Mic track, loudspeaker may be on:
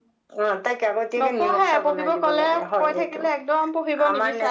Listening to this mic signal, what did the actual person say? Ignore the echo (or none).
none